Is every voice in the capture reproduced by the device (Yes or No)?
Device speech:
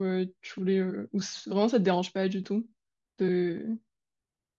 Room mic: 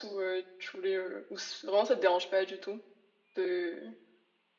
Yes